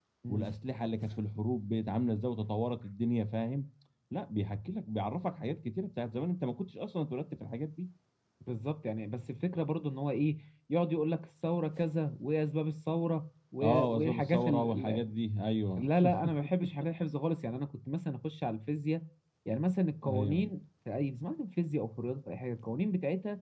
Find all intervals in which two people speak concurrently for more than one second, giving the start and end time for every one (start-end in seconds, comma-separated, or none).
13.6-15.0